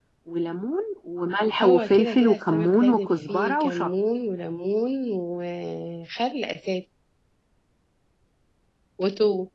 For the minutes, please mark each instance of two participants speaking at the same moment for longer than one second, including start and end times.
1.6-3.9

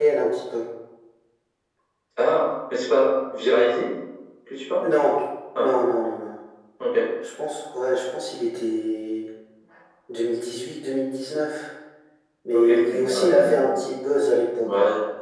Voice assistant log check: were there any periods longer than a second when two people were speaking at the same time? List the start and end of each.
12.5-13.7

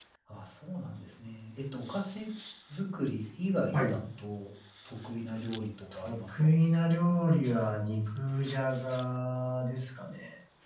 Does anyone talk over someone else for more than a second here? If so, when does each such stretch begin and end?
none

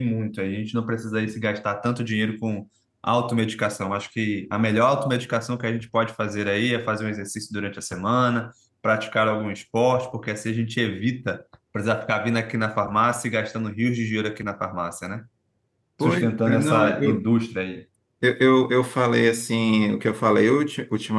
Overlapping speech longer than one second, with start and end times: 16.0-17.2

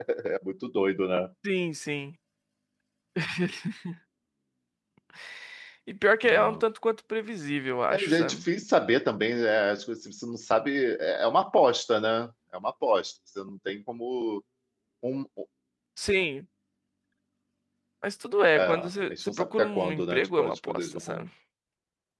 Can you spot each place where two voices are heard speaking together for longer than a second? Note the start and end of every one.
18.5-21.3

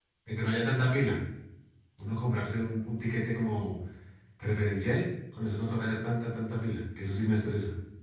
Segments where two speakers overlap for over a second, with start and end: none

